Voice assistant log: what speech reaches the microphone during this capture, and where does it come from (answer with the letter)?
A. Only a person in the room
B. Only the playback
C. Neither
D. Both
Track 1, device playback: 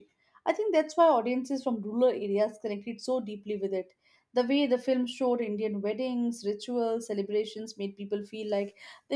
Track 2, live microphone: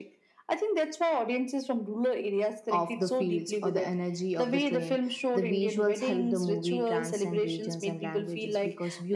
D